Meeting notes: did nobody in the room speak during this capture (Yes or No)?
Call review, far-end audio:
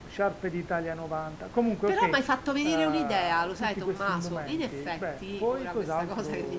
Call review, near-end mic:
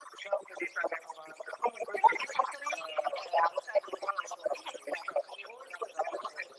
Yes